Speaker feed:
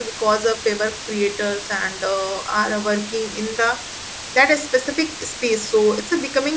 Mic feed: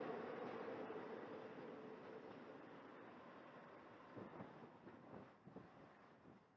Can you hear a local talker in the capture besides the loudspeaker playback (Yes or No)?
No